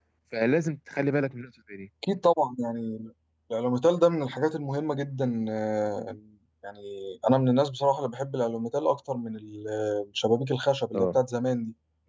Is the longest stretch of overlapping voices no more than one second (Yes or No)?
Yes